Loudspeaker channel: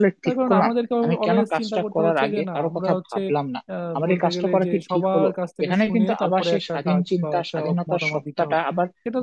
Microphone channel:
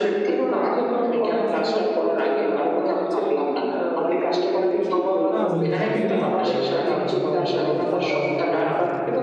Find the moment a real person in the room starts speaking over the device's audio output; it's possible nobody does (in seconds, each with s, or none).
5.3 s